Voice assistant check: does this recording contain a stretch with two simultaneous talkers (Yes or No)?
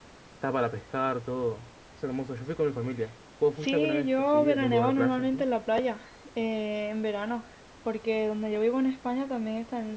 Yes